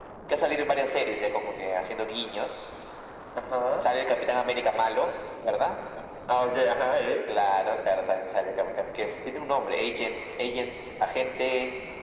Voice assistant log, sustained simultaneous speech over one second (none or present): none